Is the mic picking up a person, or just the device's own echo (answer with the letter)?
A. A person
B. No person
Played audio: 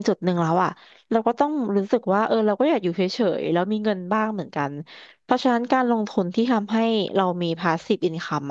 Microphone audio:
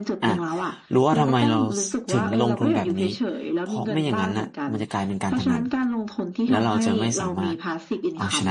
A